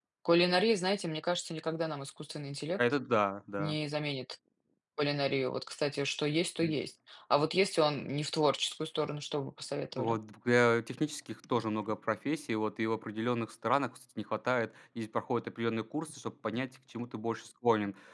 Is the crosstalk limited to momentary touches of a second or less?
Yes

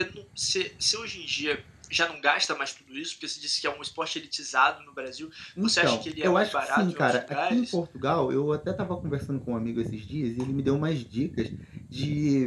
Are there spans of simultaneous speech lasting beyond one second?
Yes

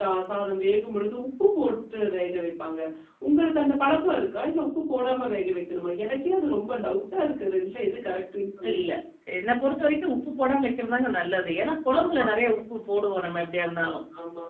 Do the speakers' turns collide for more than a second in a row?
No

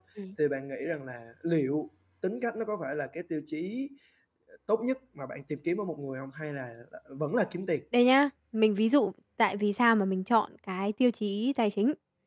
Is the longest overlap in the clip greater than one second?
No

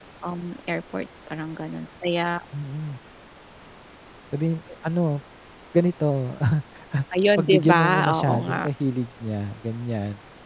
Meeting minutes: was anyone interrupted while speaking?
Yes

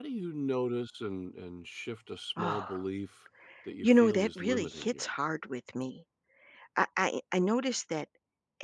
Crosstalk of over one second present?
Yes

